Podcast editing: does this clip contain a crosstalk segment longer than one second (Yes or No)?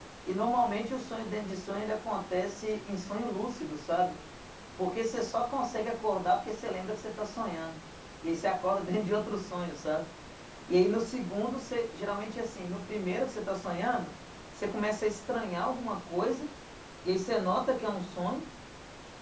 No